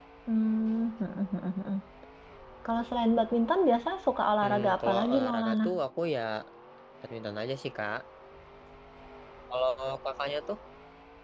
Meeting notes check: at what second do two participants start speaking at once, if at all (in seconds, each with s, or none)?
4.4 s